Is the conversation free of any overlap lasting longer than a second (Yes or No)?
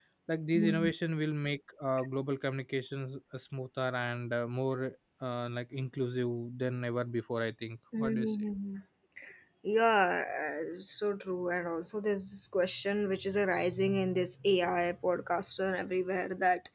Yes